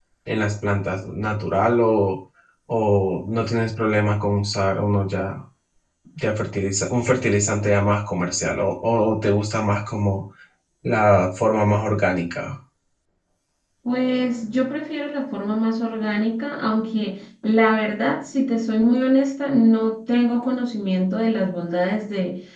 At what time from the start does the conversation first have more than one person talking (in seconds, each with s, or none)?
none